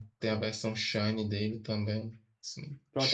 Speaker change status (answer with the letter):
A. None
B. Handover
B